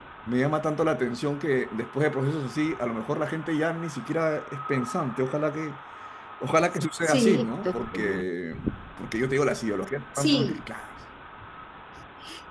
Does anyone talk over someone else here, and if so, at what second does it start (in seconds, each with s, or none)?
7.0 s